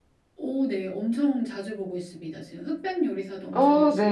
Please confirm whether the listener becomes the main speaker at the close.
Yes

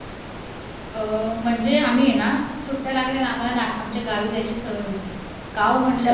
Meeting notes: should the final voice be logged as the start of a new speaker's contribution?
No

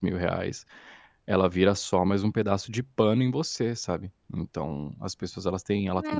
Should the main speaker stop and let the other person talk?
Yes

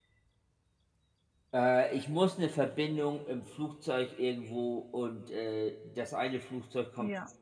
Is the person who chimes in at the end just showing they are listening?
Yes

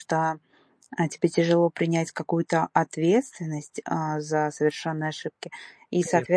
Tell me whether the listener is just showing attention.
Yes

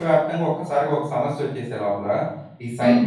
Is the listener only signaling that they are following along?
Yes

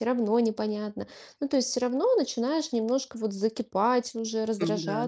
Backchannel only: Yes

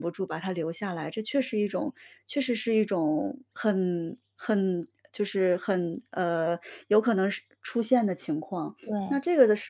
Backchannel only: Yes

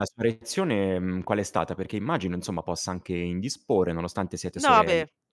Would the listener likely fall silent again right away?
No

